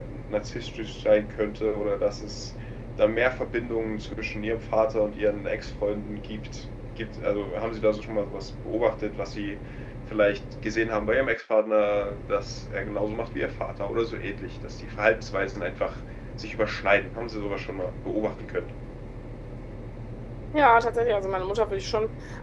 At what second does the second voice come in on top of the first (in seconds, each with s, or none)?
none